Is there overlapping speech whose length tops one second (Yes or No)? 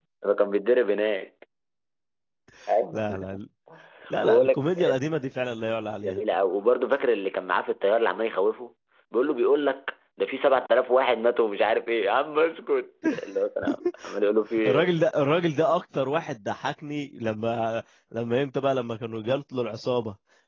No